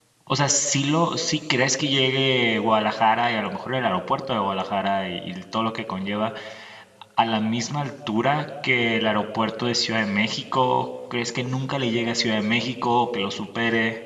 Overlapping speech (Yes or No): No